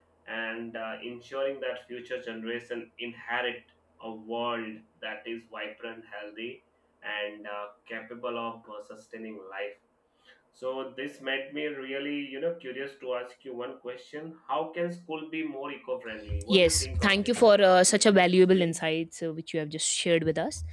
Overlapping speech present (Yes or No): Yes